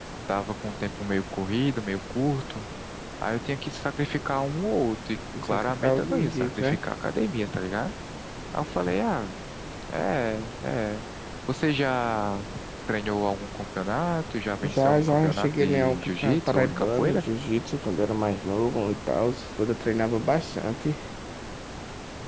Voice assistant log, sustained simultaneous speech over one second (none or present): present